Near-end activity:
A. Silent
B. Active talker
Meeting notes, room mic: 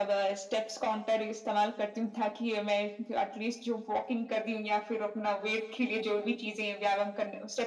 A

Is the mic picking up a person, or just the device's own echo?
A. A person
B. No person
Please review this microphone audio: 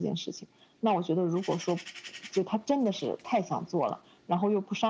B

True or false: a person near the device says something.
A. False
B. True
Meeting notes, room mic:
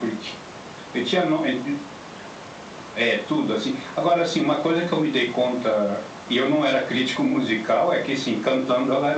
A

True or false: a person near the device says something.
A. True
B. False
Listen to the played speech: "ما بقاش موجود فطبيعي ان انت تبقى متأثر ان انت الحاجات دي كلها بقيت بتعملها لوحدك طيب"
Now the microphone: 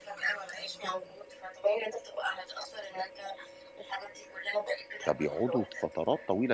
A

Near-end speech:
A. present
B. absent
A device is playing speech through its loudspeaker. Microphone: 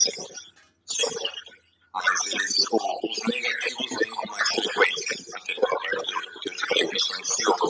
B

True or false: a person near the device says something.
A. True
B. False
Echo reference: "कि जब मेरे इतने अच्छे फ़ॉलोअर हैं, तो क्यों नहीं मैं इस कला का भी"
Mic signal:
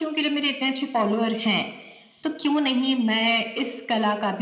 B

